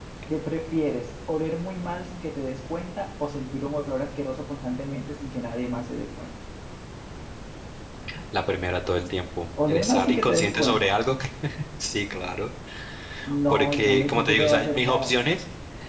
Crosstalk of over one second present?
Yes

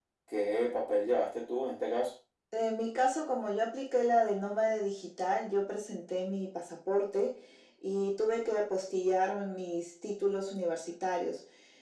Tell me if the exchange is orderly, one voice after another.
Yes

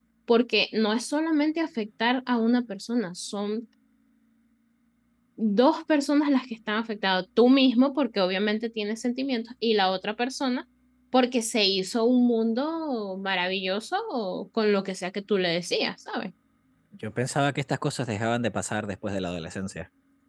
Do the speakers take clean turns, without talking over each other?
Yes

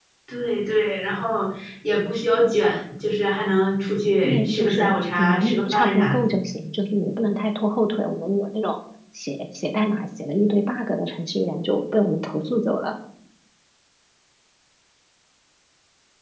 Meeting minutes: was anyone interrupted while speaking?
Yes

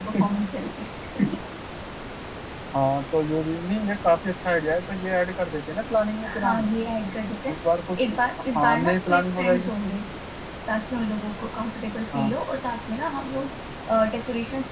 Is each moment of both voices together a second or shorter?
No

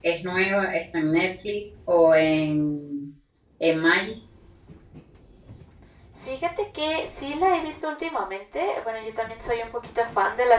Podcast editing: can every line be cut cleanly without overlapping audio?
Yes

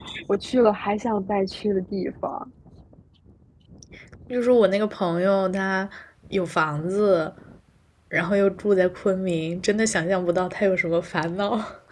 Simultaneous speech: No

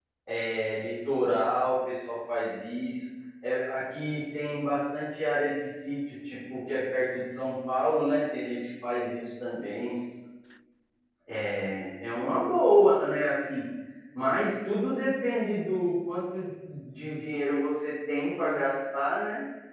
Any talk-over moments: No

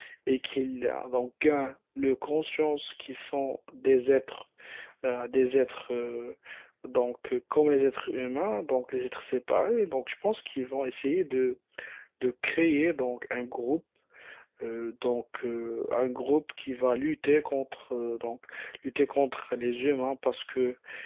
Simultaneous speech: No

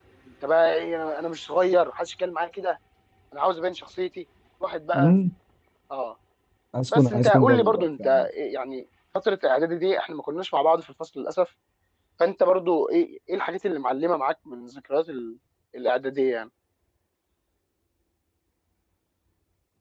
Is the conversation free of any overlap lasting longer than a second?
No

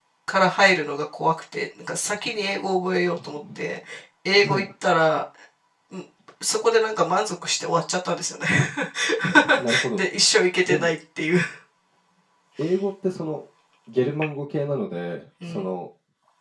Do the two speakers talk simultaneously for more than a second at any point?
No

